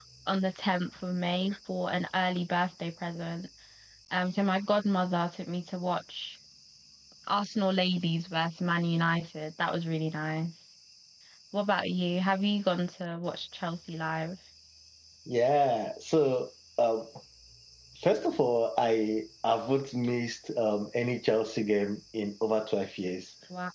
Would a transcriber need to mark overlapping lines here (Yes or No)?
No